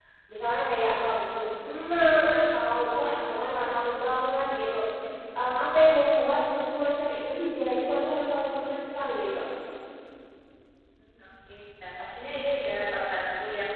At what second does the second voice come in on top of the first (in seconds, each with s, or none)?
none